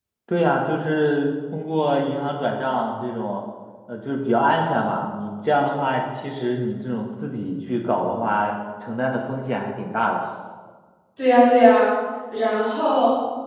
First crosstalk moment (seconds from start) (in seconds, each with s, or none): none